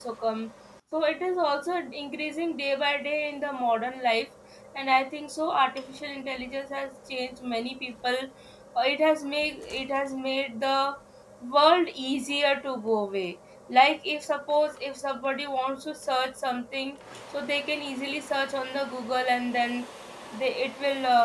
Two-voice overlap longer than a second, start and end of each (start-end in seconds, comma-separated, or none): none